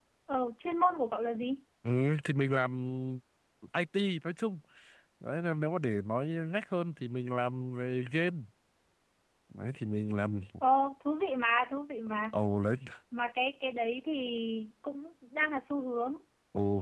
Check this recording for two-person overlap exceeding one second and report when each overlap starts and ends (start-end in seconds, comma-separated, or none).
none